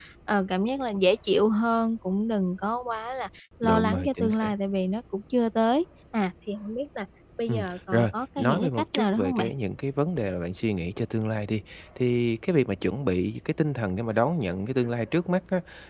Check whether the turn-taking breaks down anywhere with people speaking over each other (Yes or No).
Yes